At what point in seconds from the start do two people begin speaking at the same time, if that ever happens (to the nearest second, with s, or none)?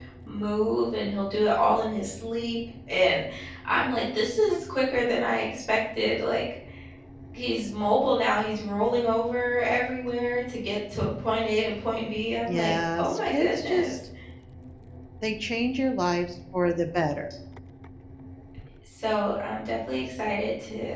12 s